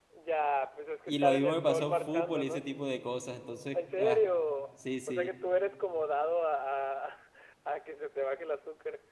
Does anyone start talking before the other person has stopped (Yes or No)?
Yes